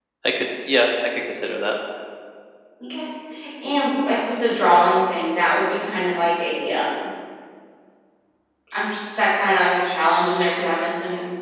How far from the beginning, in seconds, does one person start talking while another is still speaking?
none

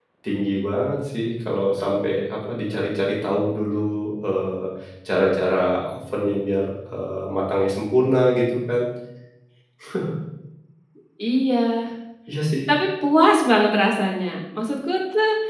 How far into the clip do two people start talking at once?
none

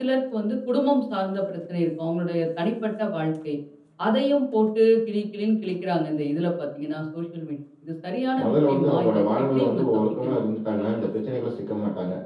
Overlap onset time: 8 s

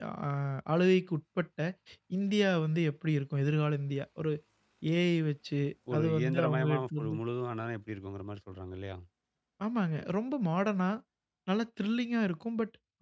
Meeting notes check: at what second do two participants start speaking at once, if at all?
6 s

